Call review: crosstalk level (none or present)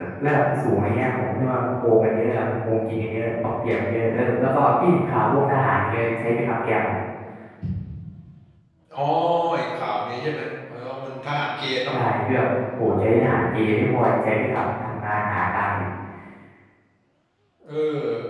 none